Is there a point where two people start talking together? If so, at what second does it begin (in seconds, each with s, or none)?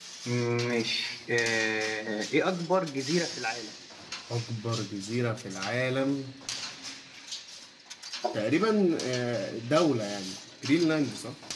none